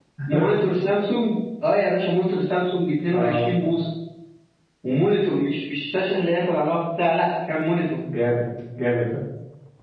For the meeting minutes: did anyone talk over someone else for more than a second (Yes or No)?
No